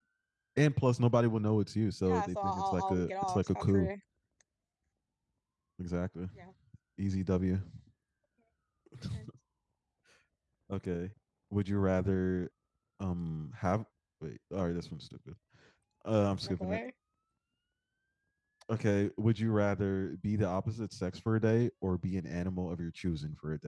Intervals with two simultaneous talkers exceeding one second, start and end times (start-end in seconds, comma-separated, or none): 2.1-3.9